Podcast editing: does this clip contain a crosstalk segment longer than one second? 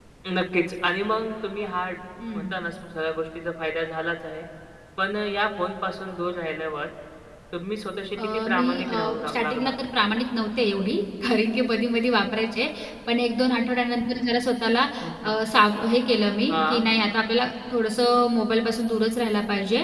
Yes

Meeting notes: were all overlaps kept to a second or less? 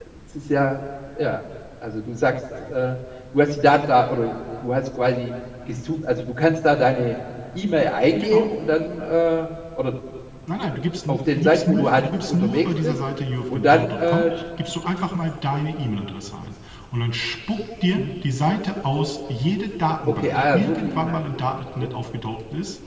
No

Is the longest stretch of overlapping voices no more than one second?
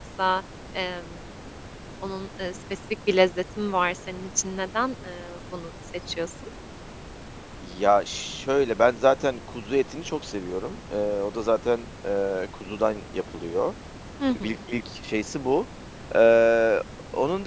Yes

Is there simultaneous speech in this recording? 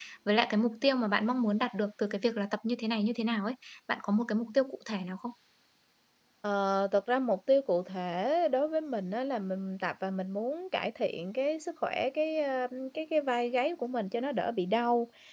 No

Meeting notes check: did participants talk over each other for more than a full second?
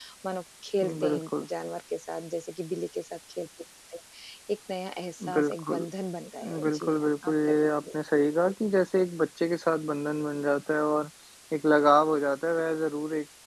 Yes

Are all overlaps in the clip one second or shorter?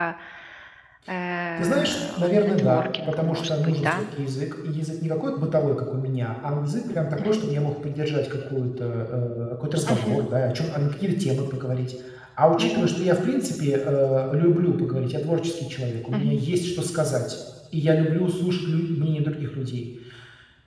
No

